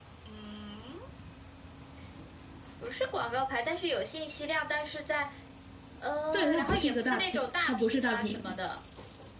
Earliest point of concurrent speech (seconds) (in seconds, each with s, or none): 6.3 s